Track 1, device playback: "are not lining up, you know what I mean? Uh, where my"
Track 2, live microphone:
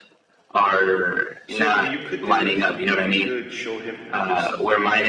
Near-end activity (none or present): present